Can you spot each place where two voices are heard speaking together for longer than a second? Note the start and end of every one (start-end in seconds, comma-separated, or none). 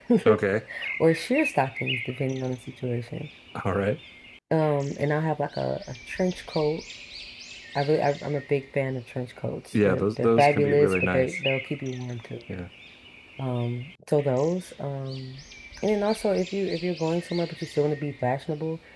9.8-11.4